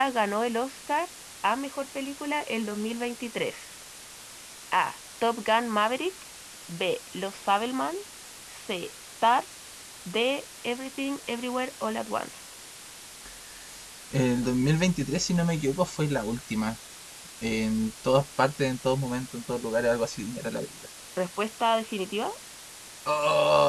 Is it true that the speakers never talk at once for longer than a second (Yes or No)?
Yes